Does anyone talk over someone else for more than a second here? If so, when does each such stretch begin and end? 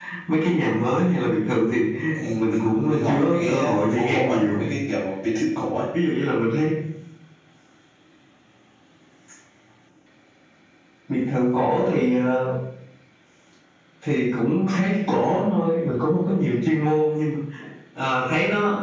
2.4-4.6

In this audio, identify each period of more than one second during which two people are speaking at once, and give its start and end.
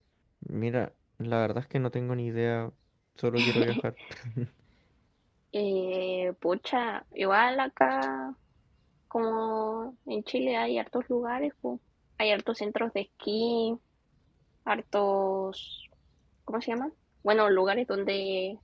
none

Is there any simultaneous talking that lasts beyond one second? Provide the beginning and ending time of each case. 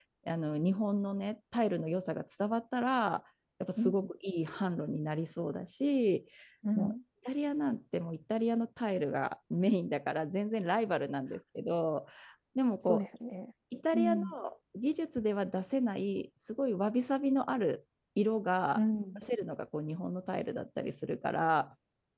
none

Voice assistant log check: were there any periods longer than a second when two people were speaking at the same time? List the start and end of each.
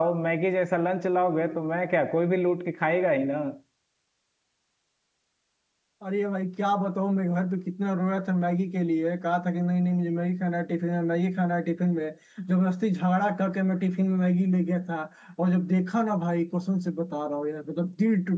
none

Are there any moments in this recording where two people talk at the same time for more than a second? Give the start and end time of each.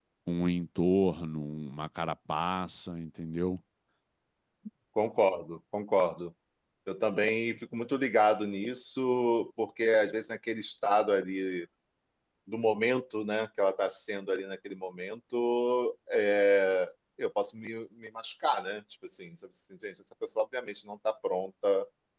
none

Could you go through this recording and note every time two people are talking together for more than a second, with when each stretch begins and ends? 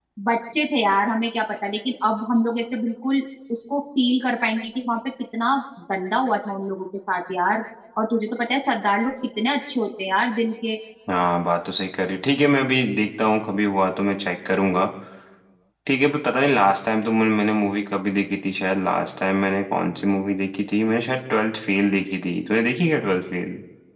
none

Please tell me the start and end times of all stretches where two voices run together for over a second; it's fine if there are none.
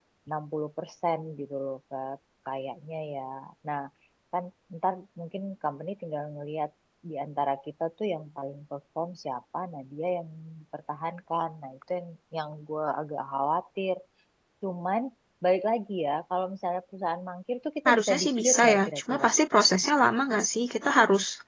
17.9-19.3

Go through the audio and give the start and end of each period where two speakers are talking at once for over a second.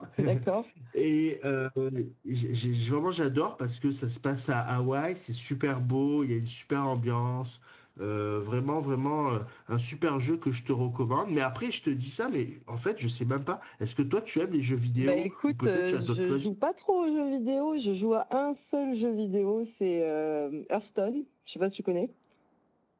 15.0-16.5

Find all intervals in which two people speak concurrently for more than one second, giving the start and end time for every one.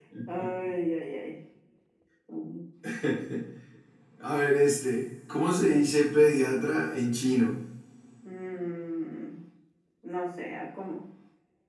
none

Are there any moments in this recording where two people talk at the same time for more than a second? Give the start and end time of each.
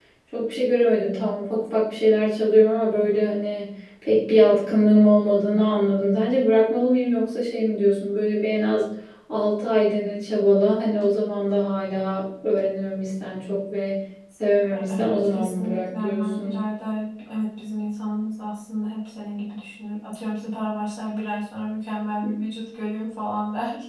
14.7-16.6

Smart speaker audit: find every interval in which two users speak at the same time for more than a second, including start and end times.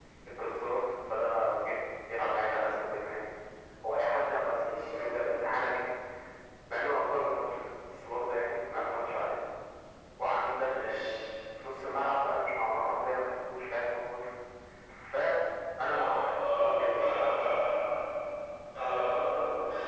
15.9-17.3

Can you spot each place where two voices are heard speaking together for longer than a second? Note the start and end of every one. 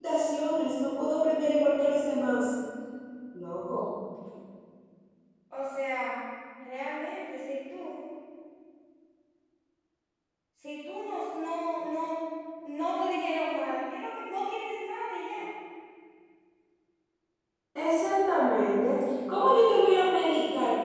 none

